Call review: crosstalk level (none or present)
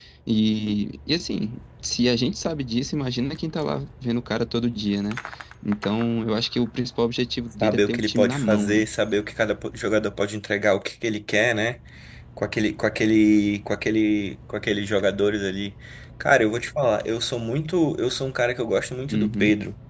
present